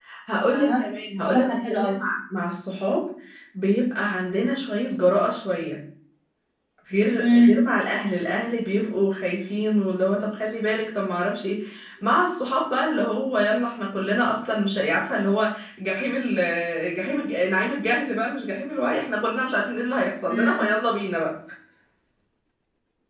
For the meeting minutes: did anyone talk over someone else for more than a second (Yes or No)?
Yes